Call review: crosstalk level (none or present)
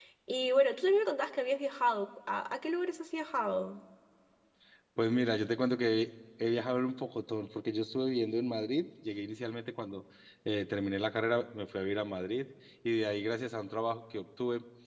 none